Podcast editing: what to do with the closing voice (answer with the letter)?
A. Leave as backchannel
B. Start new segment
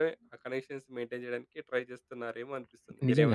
B